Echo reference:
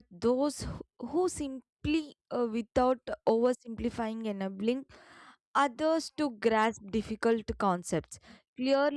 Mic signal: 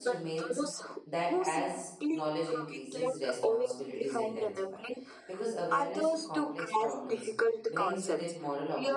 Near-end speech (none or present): present